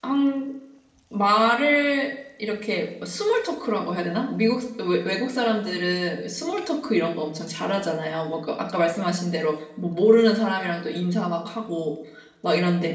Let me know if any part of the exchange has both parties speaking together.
No

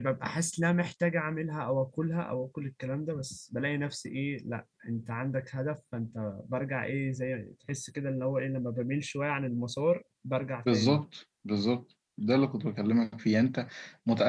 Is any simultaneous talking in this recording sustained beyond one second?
No

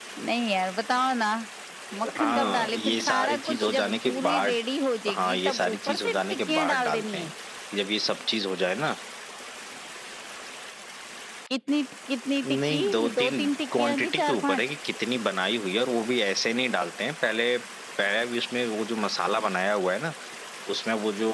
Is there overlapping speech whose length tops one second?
Yes, from 2.1 s

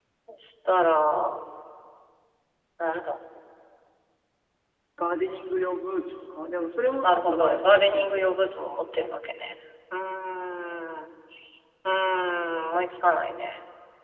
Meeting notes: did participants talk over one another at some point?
Yes, from 7.0 s

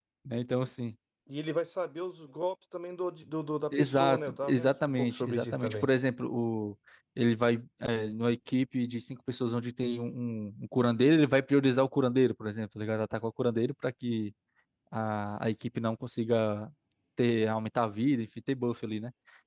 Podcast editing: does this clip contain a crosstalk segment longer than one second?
Yes, from 3.7 s

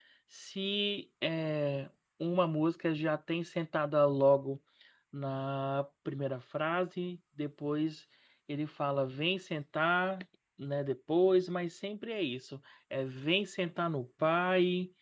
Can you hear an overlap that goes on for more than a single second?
No

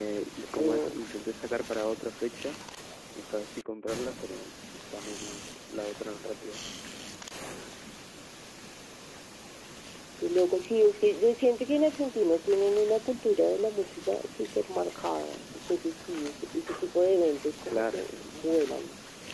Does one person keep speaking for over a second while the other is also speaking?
No

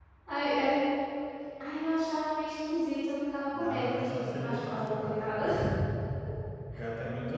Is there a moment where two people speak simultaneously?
Yes, from 3.5 s

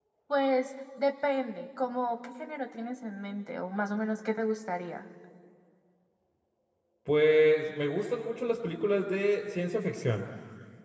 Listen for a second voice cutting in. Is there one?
No

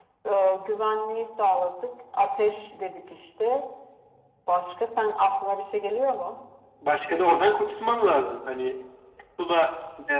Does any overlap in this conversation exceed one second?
No

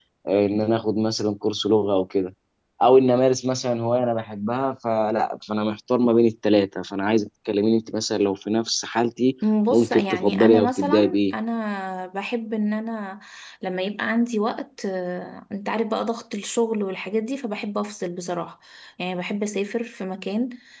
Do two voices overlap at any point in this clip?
Yes, from 9.7 s

